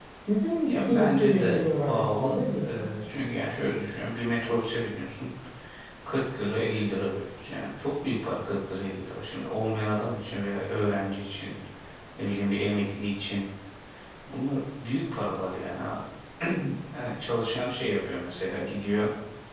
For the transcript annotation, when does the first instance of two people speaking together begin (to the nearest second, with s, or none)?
1 s